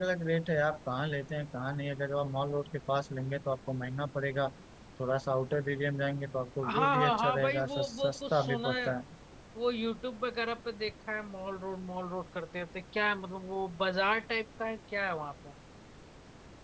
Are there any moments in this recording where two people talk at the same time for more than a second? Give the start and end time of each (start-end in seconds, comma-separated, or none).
6.6-8.9